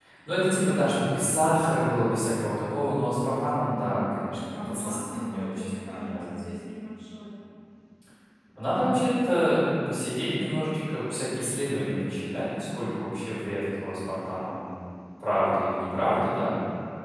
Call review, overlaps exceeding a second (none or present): present